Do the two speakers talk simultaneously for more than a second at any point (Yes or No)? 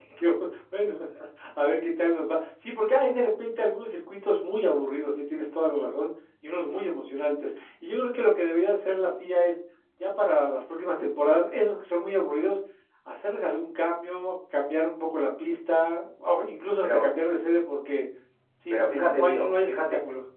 Yes